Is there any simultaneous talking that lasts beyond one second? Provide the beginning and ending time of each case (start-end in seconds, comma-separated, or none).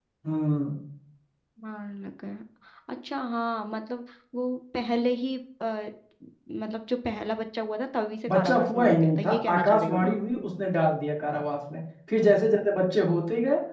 8.3-10.2